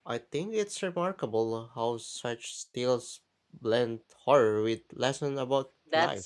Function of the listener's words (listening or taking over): taking over